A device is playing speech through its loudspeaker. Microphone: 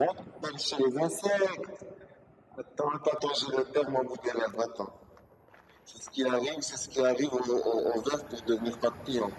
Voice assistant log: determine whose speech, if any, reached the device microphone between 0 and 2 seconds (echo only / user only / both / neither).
echo only